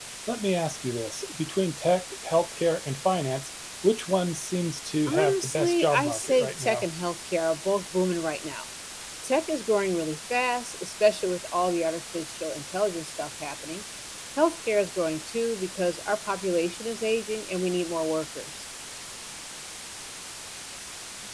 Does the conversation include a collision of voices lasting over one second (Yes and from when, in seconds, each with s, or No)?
Yes, from 5.1 s